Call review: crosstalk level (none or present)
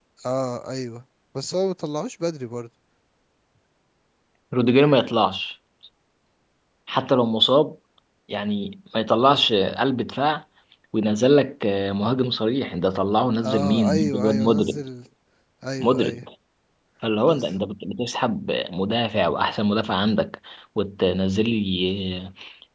present